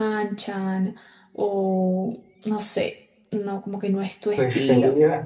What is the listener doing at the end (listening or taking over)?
taking over